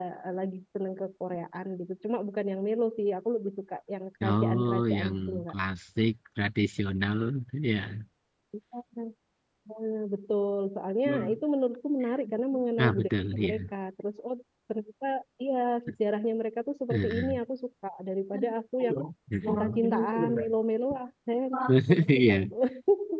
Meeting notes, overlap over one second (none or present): present